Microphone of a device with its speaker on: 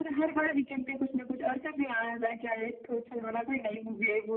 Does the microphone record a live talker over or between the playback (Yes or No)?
No